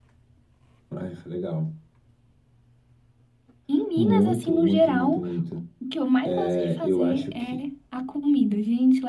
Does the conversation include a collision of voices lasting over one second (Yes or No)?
Yes